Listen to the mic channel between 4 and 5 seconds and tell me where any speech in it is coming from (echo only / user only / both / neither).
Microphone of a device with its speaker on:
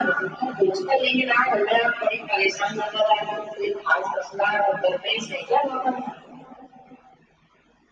echo only